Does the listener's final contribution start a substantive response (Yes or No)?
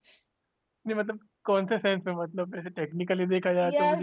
Yes